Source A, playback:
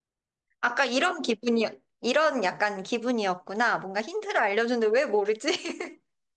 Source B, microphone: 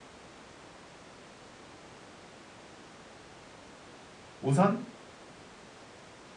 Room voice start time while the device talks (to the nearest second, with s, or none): 4 s